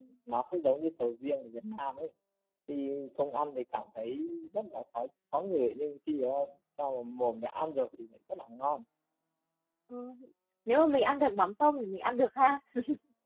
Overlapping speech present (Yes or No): No